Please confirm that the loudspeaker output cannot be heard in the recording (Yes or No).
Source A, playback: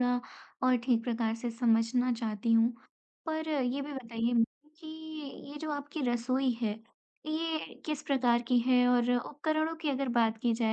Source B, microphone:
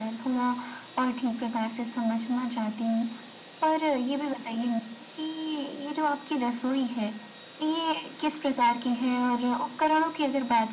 No